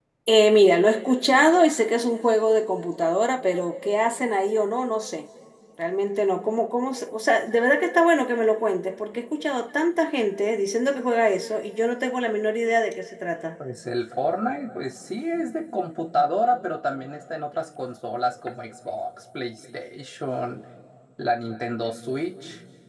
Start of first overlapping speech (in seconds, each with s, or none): none